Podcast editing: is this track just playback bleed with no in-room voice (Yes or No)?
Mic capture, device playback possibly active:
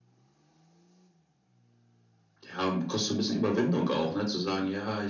Yes